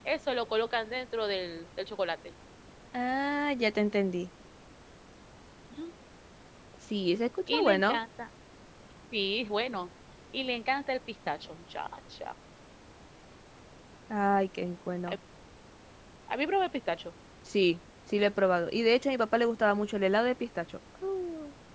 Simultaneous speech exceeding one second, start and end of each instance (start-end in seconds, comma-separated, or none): none